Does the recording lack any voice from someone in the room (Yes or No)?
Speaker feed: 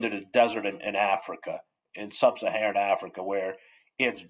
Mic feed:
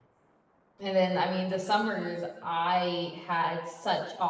No